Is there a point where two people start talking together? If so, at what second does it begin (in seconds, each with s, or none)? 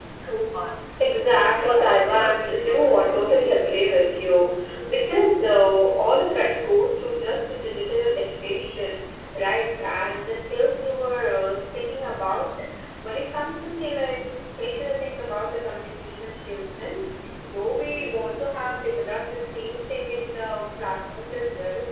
1.4 s